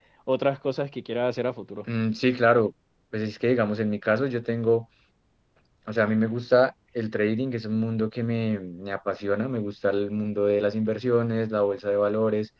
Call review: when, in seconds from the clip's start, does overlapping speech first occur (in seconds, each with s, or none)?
none